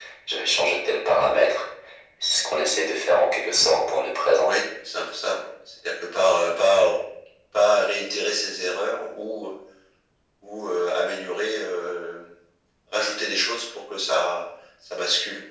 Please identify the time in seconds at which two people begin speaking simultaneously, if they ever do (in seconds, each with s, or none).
none